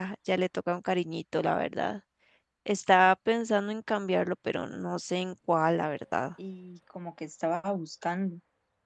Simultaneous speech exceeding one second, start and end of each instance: none

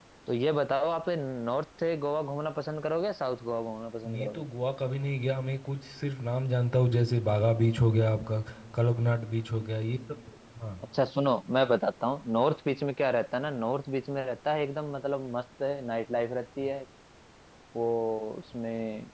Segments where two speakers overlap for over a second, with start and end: none

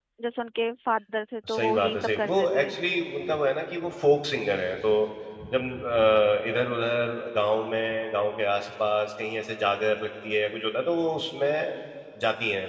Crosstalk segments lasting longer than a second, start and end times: 1.5-2.7

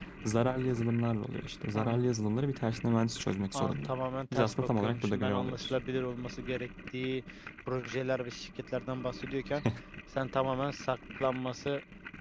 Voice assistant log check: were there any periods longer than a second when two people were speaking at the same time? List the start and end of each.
4.3-5.7

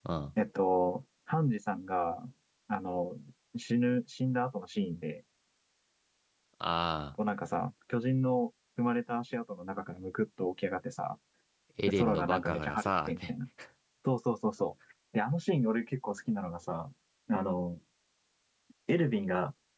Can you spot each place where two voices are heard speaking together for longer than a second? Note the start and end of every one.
11.9-13.3

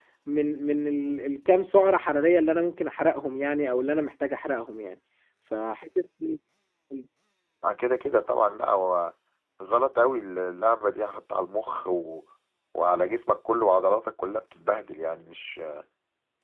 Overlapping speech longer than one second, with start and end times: none

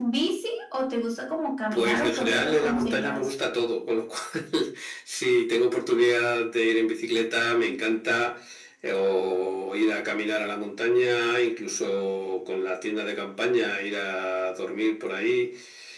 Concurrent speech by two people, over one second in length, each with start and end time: 1.7-3.3

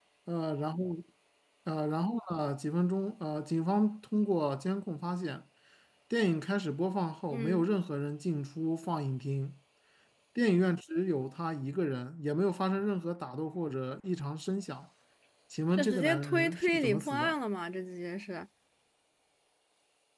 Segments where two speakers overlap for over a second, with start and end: 15.8-17.3

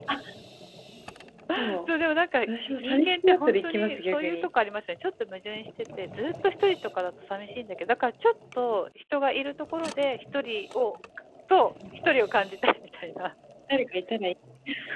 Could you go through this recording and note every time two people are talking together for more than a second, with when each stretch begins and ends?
2.5-4.5

